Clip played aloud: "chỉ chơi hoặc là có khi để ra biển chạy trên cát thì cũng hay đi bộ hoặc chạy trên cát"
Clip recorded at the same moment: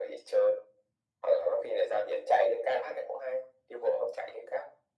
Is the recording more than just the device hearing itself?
No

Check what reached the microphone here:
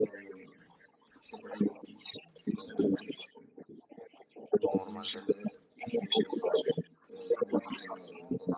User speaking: Yes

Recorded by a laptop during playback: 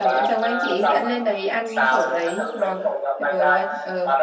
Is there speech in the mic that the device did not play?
Yes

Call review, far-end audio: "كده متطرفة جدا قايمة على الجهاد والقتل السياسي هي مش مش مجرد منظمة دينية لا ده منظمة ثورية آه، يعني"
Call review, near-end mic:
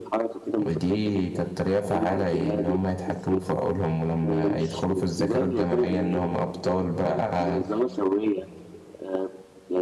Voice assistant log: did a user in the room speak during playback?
Yes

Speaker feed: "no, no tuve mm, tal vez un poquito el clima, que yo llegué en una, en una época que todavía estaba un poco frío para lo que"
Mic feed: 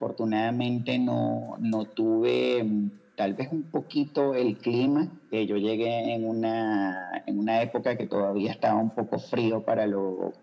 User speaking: No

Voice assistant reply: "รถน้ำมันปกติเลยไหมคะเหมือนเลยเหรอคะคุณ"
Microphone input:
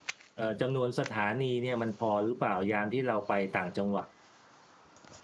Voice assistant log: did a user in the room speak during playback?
Yes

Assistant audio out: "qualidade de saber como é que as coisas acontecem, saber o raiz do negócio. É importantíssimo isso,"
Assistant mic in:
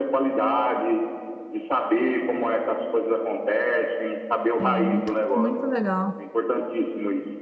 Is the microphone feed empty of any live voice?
No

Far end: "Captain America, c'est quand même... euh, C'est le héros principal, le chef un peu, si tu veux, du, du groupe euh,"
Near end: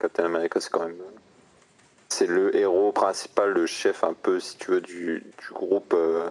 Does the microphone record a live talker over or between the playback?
No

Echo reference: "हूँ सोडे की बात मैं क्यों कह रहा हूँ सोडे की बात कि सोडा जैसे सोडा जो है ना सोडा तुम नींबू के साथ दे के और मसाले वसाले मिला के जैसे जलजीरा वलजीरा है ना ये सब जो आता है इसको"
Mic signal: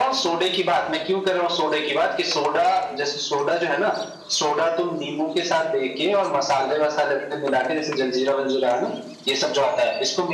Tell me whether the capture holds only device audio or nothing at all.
Yes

